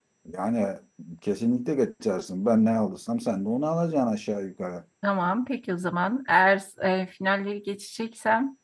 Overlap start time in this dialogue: none

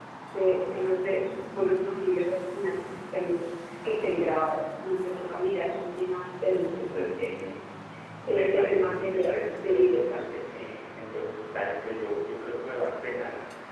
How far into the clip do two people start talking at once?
8.3 s

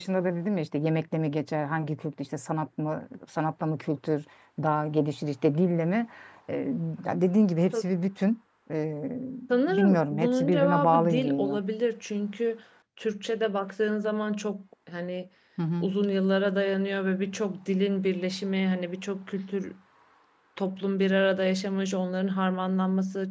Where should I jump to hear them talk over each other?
9.7 s

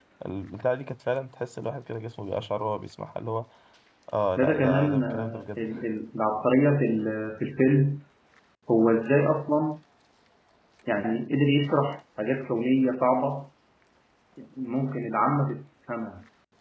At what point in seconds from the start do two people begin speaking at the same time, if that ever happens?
4.4 s

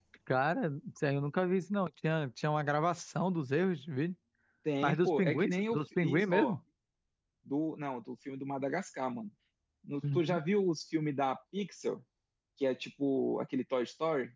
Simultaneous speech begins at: 4.8 s

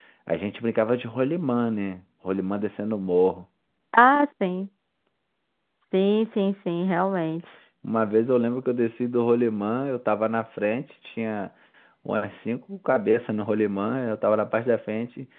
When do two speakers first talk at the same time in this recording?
none

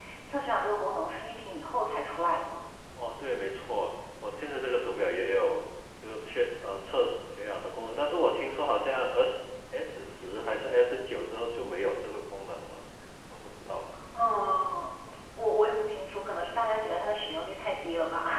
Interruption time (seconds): none

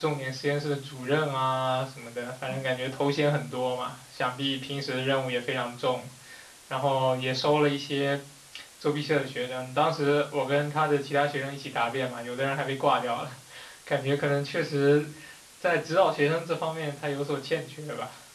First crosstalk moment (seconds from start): none

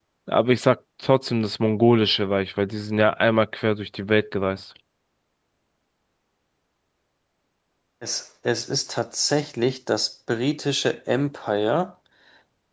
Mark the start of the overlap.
none

